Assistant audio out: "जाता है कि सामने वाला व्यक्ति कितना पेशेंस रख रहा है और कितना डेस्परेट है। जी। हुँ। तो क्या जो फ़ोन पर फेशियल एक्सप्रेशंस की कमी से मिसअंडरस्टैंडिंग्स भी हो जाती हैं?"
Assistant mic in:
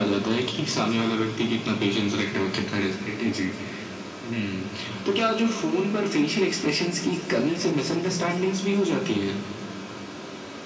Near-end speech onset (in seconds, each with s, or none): none